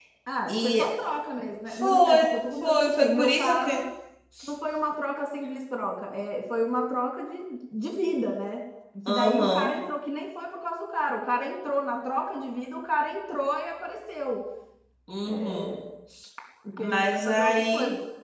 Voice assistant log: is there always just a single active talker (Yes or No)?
No